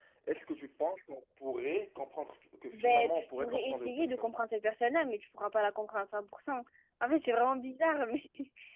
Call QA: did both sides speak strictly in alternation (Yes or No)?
No